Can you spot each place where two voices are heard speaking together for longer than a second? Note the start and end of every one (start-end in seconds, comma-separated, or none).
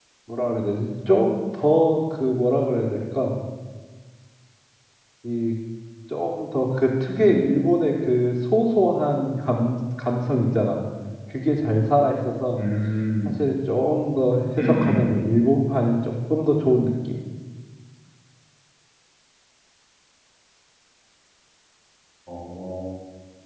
none